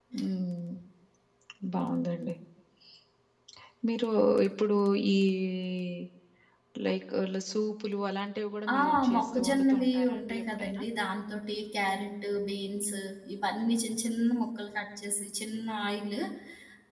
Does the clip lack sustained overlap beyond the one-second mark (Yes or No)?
No